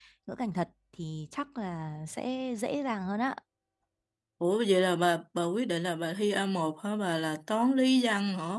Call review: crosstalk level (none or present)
none